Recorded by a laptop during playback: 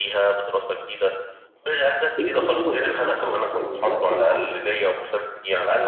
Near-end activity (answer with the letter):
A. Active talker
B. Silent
A